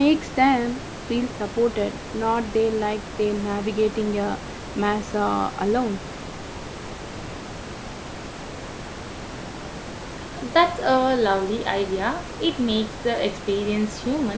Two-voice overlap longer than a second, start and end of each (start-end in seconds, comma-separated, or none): none